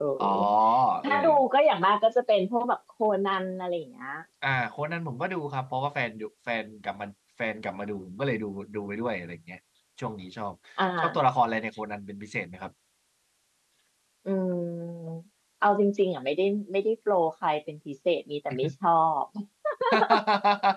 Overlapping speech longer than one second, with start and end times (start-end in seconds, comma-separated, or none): none